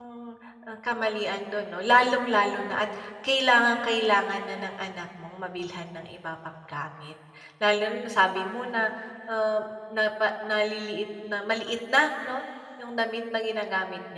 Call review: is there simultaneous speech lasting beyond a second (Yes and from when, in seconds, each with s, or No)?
No